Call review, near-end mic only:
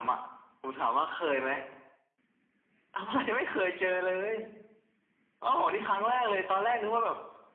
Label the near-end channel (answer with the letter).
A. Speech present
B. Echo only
B